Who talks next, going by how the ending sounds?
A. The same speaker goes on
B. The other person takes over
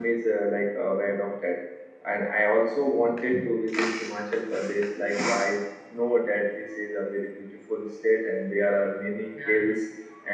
A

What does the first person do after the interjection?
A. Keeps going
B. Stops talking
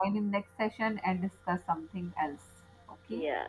B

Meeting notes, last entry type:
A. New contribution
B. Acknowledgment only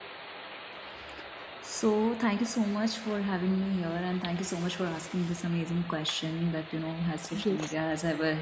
B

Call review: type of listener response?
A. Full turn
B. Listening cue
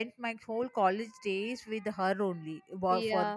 B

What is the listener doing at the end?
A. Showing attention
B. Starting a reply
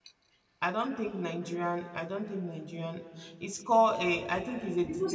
B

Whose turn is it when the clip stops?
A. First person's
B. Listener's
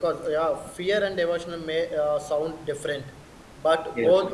A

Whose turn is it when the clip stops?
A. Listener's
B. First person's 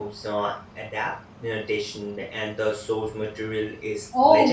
A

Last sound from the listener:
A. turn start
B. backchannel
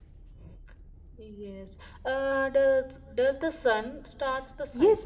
A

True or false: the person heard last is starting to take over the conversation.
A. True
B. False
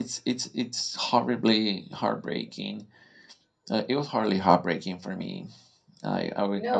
A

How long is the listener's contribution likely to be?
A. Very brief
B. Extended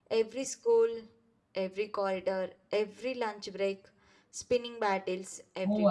B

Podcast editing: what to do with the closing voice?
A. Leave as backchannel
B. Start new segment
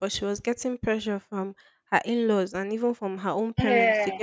A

